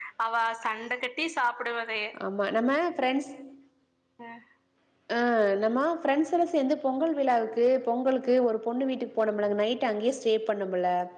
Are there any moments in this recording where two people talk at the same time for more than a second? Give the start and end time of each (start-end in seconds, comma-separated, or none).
none